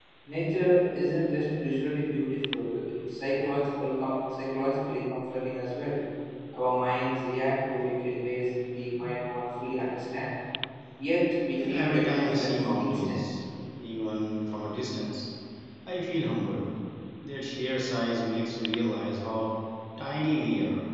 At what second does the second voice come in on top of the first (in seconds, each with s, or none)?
11.6 s